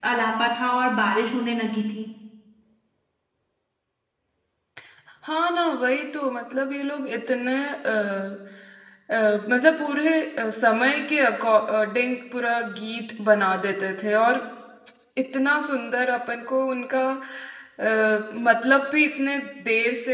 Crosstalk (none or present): none